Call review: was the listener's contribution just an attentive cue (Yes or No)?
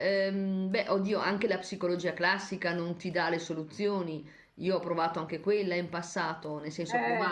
Yes